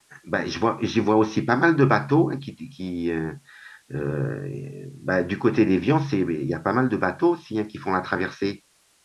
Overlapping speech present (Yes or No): No